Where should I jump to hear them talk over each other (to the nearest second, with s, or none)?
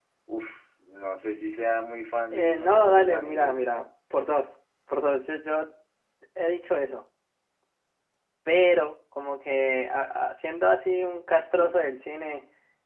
2 s